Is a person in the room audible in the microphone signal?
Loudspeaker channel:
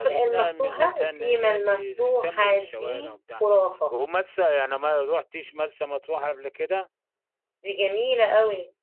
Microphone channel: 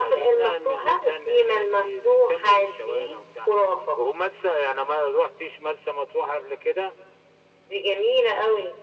No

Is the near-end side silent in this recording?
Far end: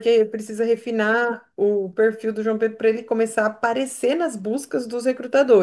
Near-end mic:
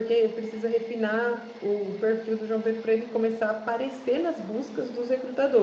Yes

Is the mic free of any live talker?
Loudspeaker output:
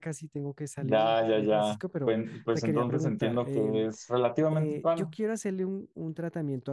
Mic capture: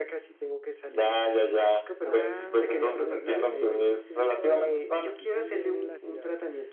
No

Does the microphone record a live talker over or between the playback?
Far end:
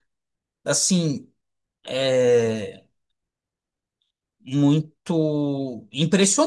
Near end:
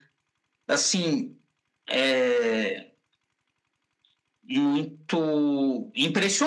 No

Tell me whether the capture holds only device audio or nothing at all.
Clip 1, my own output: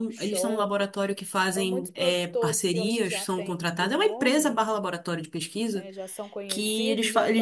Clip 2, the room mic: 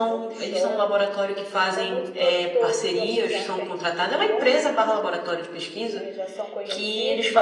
Yes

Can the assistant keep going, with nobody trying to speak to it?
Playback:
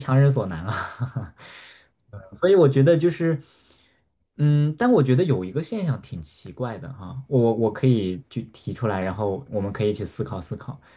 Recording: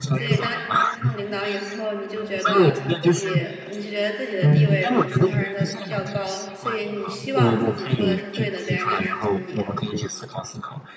No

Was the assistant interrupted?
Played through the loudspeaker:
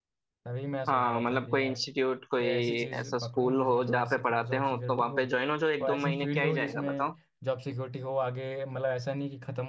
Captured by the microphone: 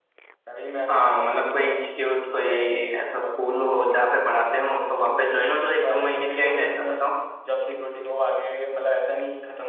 No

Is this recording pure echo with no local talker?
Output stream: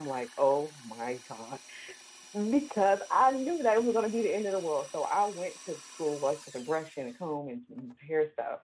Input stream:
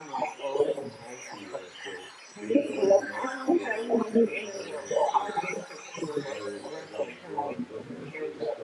No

